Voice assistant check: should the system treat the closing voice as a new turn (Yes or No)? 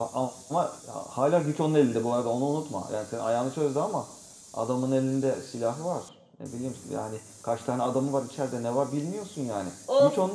Yes